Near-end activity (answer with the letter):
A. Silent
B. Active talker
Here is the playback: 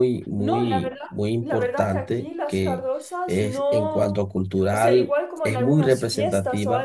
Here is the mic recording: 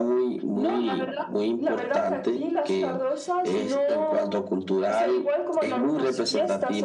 A